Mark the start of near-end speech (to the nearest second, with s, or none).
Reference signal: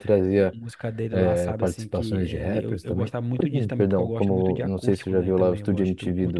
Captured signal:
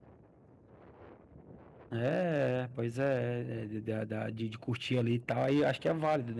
2 s